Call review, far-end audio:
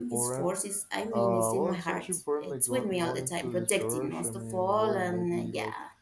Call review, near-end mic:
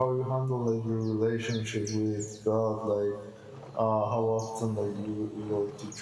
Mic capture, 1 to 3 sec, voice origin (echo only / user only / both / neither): user only